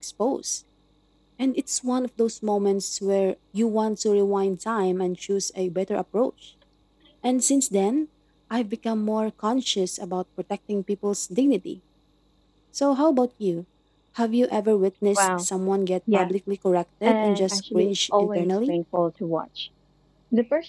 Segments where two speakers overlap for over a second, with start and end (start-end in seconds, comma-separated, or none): 17.0-18.7